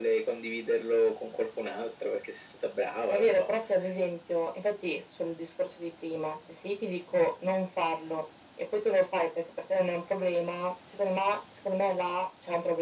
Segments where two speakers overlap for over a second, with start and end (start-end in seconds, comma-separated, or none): none